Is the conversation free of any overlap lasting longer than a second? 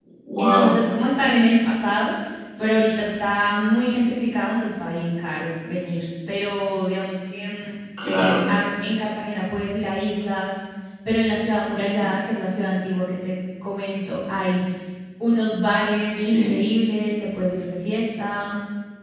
Yes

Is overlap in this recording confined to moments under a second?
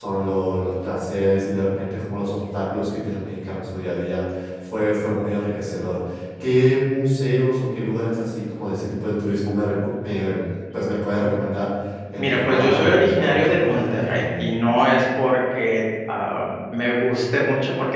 No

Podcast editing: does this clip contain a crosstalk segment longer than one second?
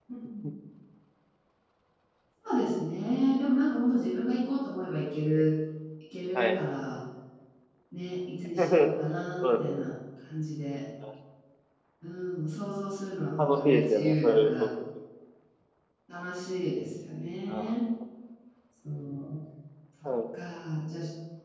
Yes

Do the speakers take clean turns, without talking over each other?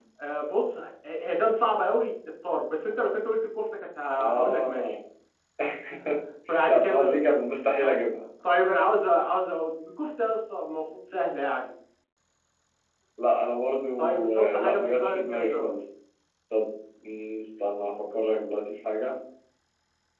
No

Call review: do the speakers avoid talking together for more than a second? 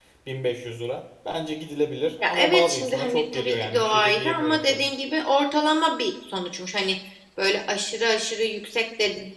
No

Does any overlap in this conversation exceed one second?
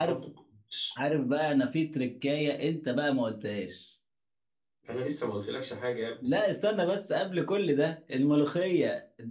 No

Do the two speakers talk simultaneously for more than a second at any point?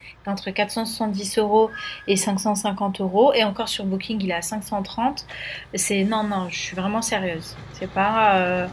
No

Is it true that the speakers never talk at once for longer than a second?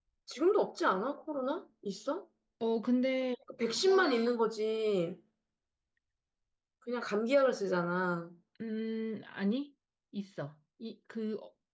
Yes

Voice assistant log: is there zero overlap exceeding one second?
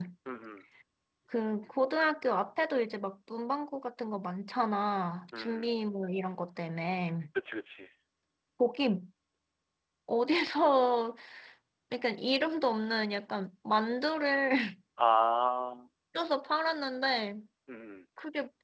Yes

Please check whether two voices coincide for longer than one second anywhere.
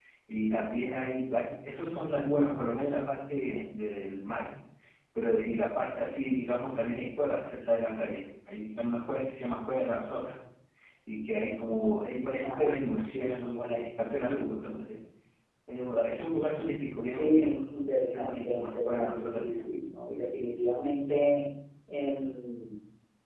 Yes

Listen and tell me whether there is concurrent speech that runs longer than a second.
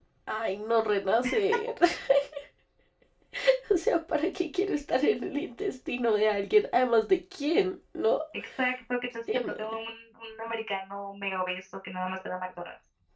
No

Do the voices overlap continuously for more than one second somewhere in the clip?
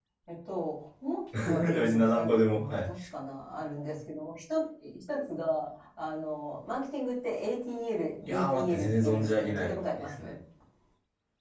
Yes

